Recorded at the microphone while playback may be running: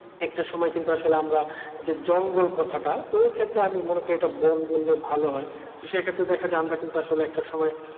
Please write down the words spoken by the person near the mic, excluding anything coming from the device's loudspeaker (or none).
none